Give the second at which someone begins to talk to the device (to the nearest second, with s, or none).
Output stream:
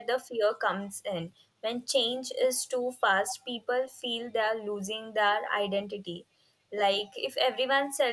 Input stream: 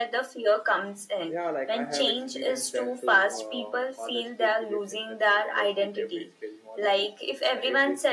1 s